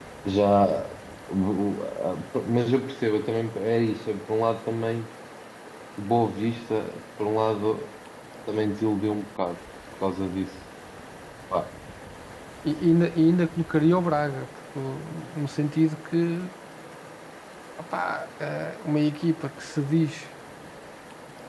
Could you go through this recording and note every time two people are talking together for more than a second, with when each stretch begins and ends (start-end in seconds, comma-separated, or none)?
none